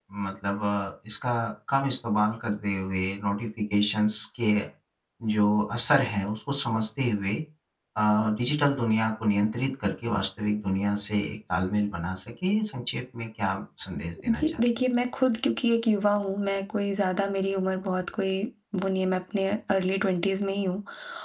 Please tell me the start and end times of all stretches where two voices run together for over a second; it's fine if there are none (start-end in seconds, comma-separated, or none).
none